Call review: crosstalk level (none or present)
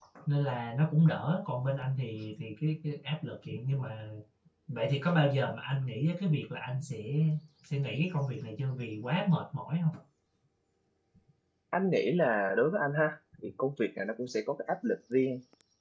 none